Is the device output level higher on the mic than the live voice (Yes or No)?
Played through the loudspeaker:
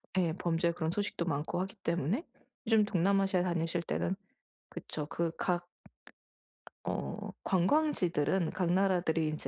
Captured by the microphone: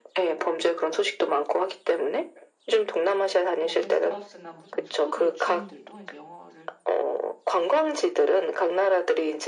Yes